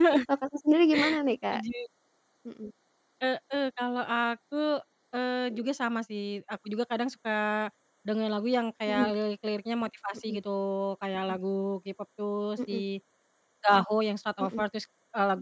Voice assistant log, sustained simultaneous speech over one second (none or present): none